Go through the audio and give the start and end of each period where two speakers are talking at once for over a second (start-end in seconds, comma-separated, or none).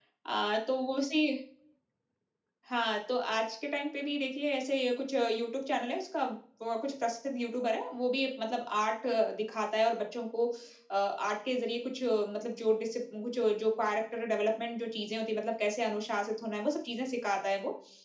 none